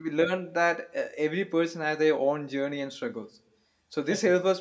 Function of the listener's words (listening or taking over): listening